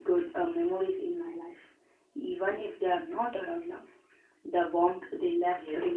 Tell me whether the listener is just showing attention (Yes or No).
No